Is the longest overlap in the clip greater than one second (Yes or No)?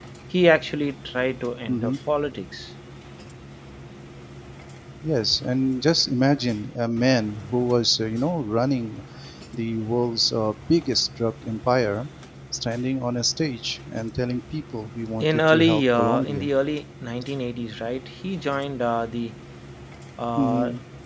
Yes